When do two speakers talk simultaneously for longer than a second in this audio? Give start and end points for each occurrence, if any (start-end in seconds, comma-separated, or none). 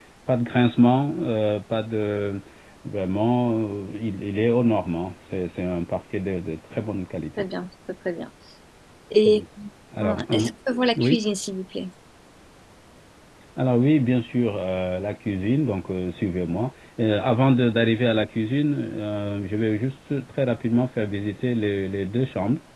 none